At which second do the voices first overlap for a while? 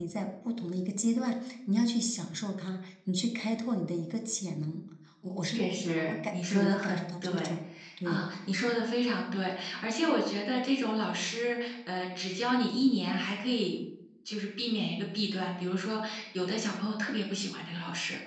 5.4 s

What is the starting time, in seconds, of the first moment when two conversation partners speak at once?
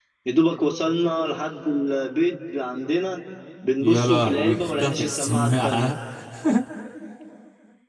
3.8 s

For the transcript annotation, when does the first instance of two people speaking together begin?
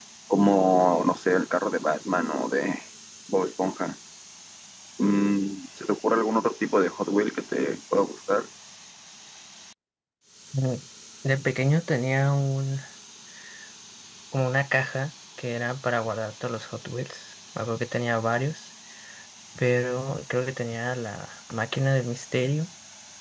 none

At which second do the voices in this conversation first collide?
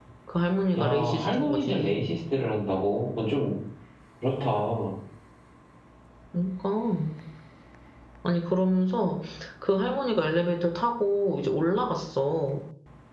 0.8 s

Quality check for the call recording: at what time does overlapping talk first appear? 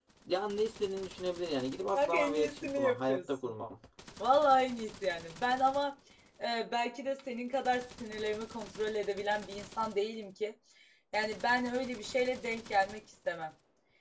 1.9 s

